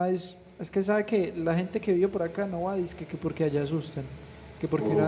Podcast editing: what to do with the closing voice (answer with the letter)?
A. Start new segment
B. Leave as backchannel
B